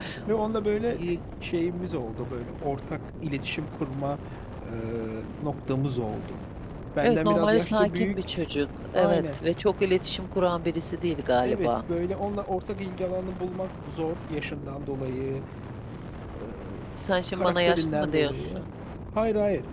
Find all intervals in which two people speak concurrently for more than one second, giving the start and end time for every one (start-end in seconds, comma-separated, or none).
7.0-8.4, 17.3-18.6